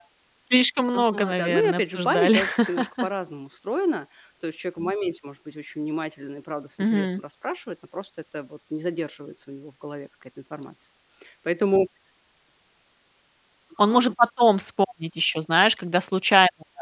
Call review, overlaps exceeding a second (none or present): present